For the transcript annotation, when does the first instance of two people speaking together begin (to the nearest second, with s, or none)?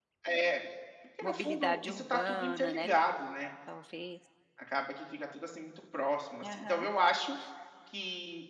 1 s